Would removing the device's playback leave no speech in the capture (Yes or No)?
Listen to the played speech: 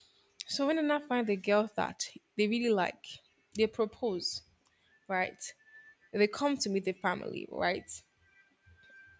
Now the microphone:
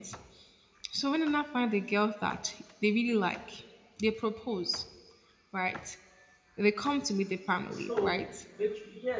No